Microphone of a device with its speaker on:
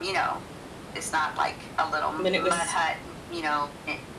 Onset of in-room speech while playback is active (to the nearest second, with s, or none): 2 s